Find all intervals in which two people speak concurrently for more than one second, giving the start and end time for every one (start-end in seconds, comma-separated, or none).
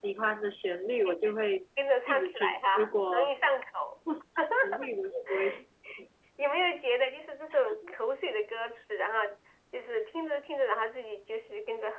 2.1-3.3